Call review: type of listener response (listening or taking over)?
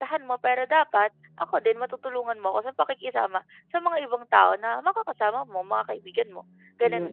taking over